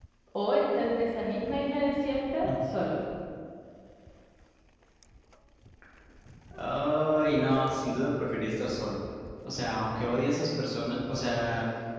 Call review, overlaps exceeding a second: none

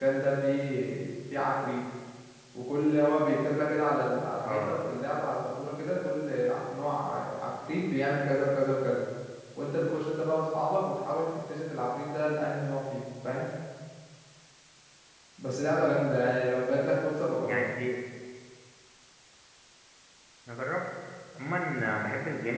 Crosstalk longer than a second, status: none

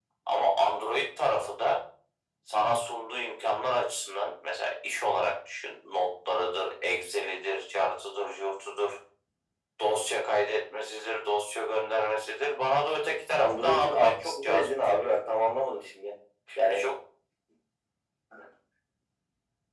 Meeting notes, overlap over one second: present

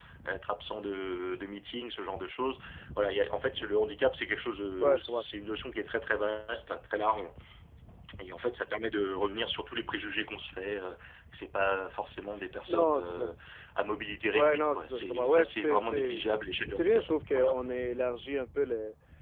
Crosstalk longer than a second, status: present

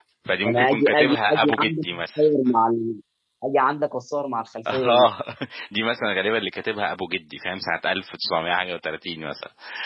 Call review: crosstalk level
present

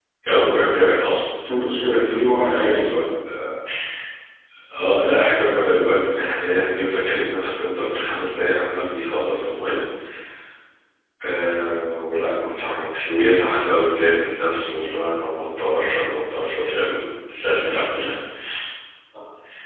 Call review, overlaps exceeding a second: present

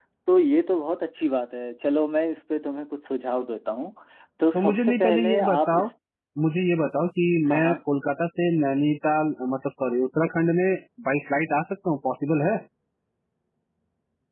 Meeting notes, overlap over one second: present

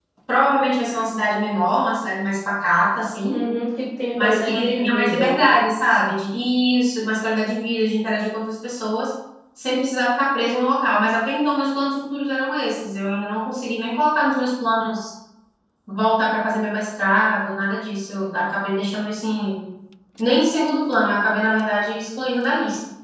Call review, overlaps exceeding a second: present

